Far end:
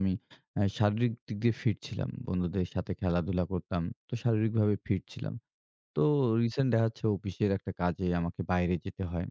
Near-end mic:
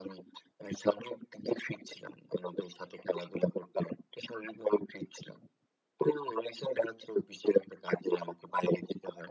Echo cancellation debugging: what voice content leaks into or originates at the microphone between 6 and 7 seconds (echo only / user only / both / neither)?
echo only